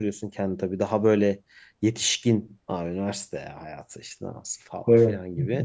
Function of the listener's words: listening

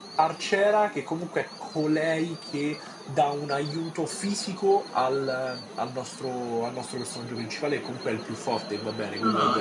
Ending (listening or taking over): taking over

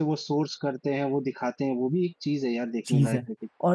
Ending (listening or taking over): taking over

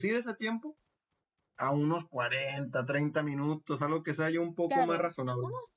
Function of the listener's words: taking over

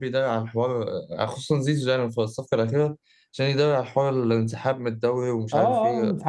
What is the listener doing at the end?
taking over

